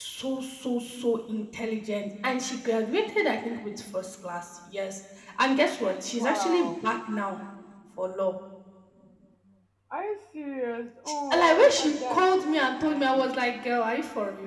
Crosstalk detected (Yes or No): Yes